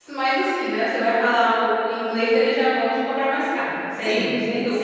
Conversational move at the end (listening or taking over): taking over